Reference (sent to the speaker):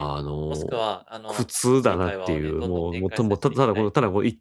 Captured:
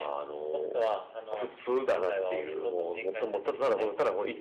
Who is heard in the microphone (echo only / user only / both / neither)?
echo only